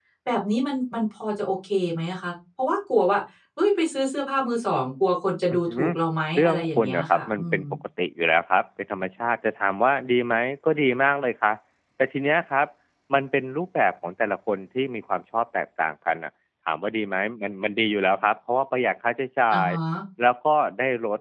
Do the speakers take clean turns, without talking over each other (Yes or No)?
No